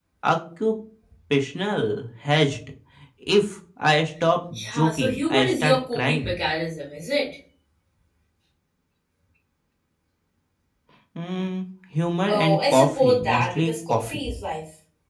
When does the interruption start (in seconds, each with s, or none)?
4.7 s